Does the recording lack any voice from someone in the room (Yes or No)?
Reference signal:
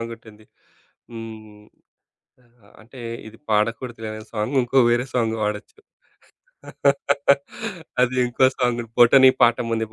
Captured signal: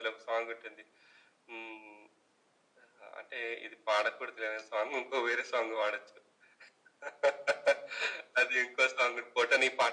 Yes